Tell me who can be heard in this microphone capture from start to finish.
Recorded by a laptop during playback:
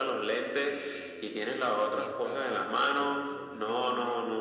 both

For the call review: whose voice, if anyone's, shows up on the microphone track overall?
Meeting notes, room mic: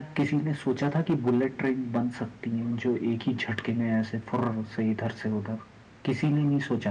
echo only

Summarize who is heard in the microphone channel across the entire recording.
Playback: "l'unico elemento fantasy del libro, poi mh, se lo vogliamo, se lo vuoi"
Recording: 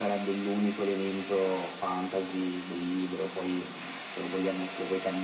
echo only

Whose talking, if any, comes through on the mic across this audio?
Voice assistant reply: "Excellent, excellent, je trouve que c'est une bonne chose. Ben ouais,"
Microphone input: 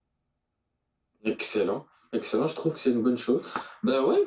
echo only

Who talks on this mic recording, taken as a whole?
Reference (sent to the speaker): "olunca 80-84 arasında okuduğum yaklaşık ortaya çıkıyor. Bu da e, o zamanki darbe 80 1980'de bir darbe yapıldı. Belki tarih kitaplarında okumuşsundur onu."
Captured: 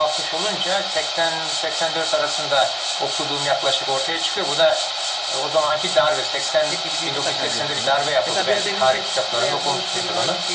both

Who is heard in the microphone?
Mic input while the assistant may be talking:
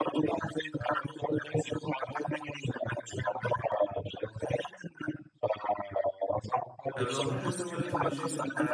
both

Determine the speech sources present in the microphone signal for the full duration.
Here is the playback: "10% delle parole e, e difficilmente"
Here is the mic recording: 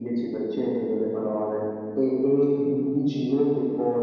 echo only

